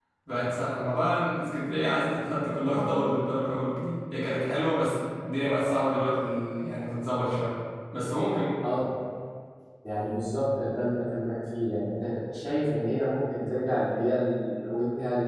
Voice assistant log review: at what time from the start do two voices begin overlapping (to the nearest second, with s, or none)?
none